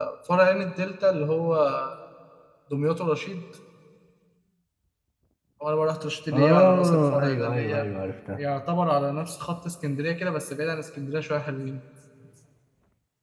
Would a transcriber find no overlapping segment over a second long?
No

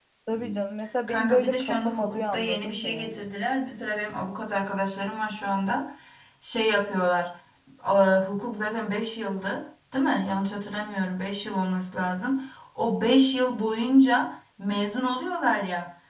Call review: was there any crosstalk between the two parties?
Yes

